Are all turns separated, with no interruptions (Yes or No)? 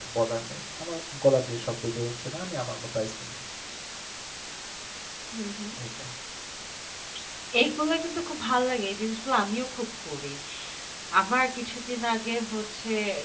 Yes